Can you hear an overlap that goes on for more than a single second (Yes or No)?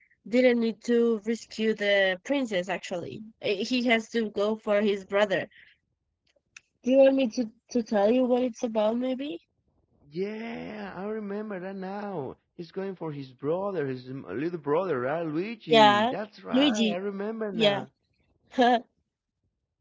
No